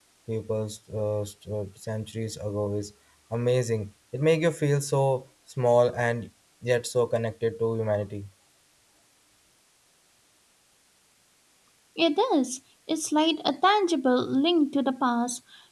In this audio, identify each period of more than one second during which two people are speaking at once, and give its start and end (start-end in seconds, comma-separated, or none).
none